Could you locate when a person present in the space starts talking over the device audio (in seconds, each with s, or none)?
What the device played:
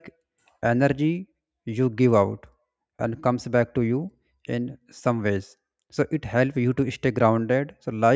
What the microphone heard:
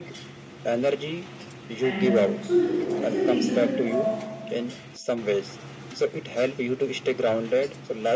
1.8 s